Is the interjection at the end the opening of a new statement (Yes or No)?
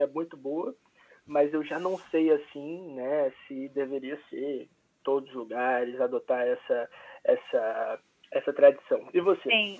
Yes